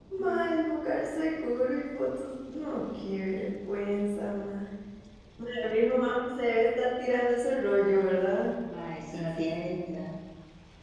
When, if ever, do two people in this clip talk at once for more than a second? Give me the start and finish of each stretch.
none

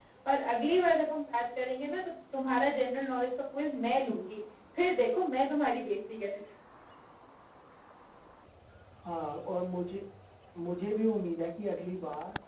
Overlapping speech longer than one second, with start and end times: none

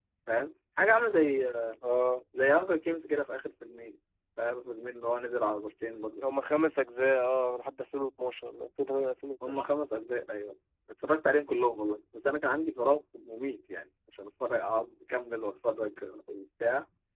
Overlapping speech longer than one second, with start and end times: none

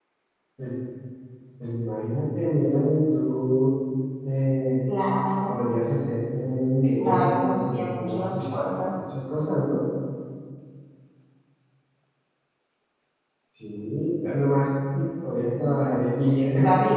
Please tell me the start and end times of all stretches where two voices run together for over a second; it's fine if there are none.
7.0-9.0

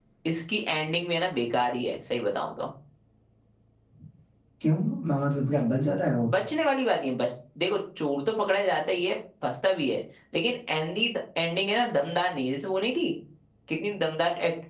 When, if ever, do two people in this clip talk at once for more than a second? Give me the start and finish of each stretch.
none

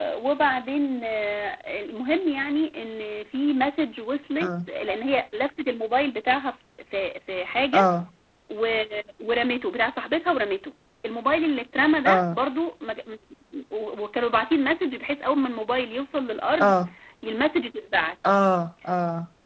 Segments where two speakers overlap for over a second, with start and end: none

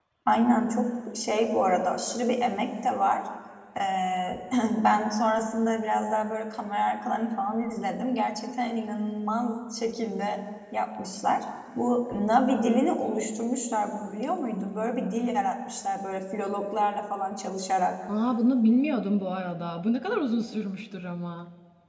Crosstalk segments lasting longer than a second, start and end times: none

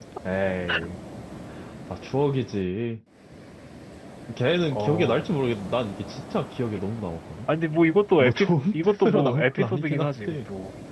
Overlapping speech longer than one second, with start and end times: 8.2-10.4

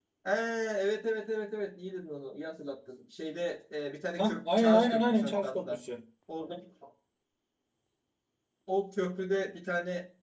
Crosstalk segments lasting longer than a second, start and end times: 4.2-5.8

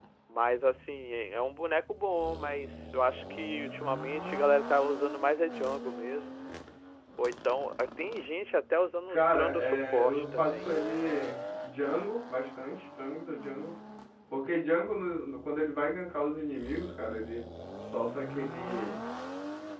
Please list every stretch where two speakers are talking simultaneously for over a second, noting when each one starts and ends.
9.1-10.7

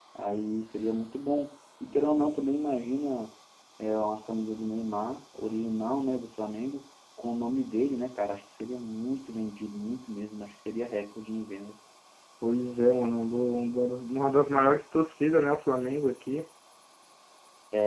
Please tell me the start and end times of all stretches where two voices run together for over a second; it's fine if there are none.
none

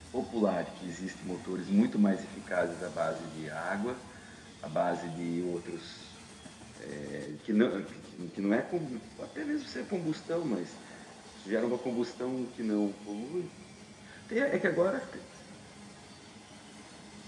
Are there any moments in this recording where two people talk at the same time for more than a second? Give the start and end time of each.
none

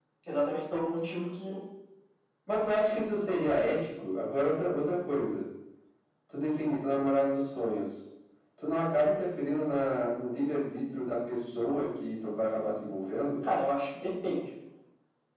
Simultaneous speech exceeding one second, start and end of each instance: none

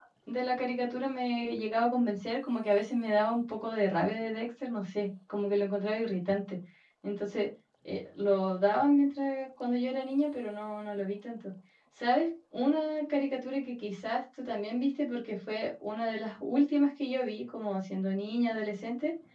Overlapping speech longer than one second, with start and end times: none

